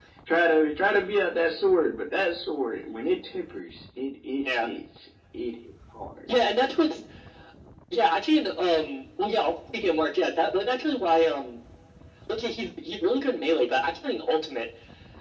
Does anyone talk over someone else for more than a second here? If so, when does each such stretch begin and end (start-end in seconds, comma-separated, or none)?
none